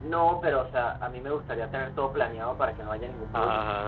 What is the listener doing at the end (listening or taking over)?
listening